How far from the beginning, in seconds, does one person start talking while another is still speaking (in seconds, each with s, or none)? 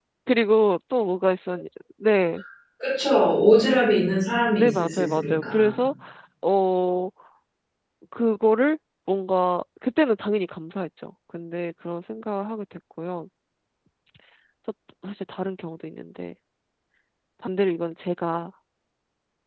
4.6 s